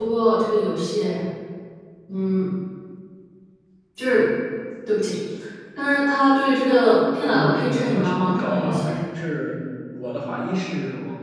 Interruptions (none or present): present